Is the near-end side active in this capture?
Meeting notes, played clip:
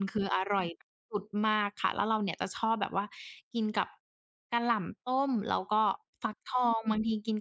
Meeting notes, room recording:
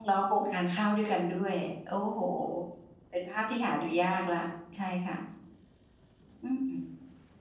Yes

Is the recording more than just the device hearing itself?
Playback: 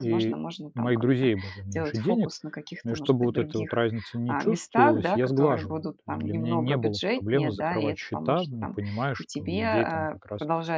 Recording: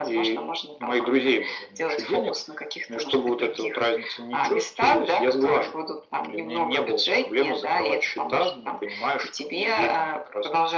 No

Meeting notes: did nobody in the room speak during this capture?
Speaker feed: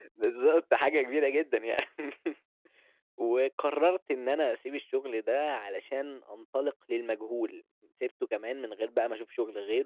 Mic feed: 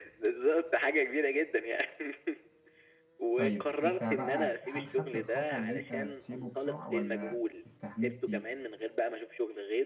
No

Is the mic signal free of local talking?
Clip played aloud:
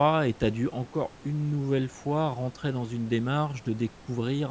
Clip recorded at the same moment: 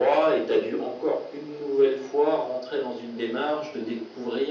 Yes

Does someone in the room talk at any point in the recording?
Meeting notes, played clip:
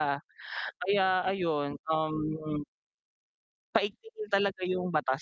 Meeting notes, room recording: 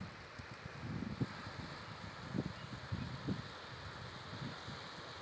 No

